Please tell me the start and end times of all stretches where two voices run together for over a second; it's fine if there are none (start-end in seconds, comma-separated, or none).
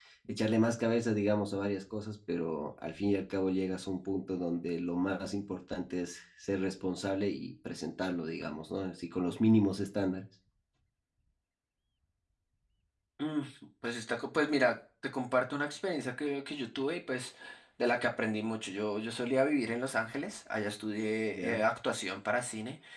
none